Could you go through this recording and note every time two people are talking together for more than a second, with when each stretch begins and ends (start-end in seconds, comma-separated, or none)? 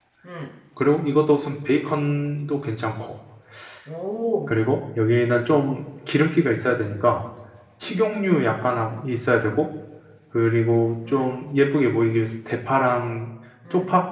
none